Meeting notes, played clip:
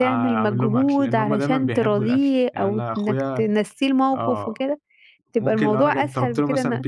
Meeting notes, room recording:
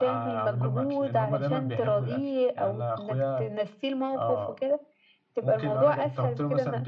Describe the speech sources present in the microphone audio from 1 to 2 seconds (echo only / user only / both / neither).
echo only